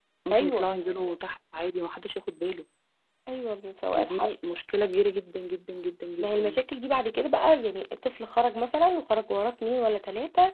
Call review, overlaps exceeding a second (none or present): none